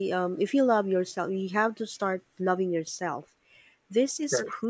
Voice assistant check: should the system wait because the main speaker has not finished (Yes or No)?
Yes